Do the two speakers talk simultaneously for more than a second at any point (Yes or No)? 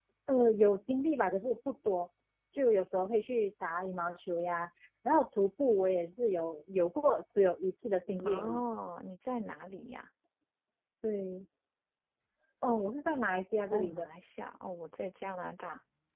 No